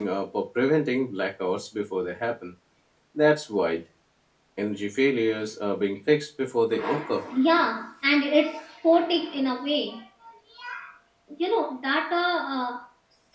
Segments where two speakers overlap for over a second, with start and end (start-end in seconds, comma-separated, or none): none